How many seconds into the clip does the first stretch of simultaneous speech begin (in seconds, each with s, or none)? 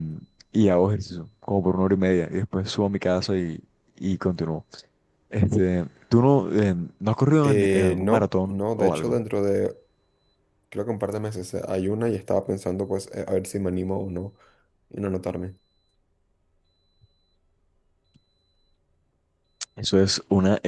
7.4 s